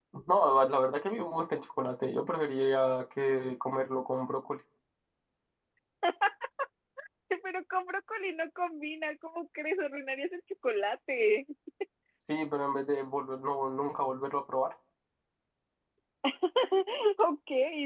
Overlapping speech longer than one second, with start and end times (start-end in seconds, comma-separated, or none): none